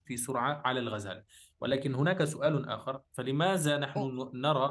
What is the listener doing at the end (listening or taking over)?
listening